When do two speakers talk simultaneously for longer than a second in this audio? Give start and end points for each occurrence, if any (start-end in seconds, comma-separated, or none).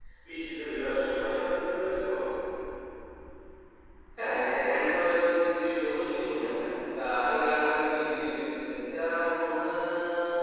none